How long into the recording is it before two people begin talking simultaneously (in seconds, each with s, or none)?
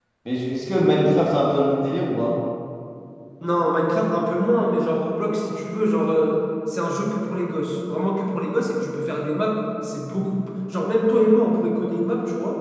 none